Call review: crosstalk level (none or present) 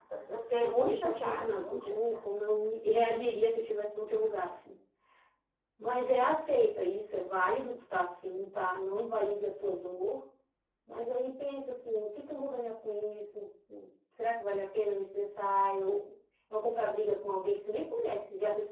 present